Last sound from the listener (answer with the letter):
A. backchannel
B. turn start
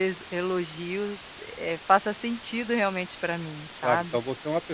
B